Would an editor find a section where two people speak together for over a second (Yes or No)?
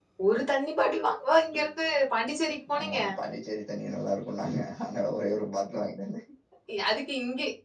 No